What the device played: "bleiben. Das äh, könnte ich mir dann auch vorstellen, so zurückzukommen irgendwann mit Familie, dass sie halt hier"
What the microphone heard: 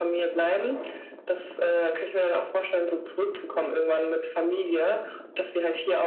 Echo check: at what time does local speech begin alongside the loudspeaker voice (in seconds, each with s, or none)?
none